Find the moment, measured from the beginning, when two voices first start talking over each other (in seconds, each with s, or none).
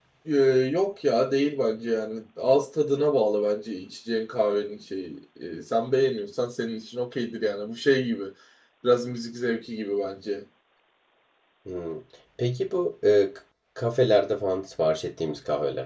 none